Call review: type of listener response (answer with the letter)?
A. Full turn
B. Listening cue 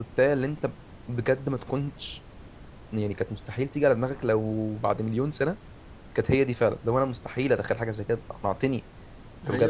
B